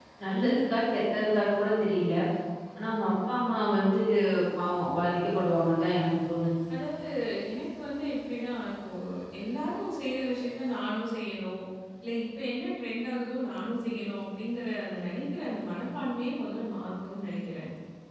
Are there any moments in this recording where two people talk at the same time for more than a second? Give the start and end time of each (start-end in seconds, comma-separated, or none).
none